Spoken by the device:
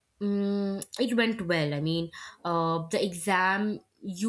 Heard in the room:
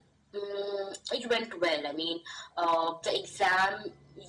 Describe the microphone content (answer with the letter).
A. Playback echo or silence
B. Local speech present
A